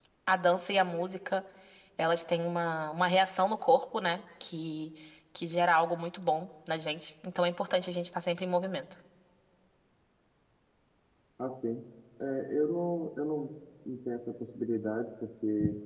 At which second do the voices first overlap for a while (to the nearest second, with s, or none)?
none